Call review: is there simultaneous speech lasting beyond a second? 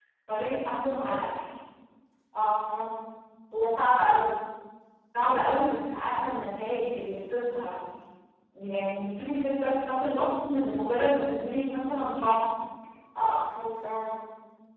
No

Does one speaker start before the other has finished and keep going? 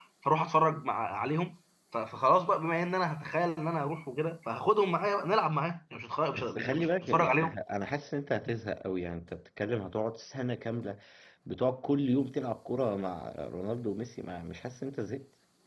Yes, from 6.3 s

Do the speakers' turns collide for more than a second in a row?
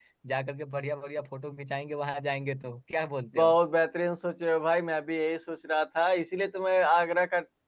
No

